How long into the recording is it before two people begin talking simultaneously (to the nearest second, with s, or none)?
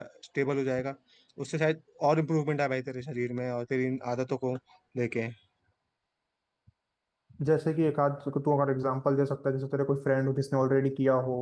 none